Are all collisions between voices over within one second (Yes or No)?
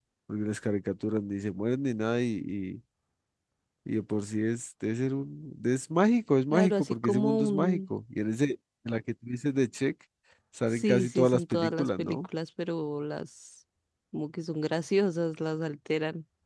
No